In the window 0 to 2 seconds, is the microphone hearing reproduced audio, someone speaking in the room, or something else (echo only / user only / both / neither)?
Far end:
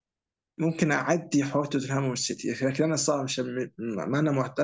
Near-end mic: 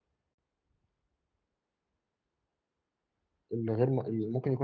neither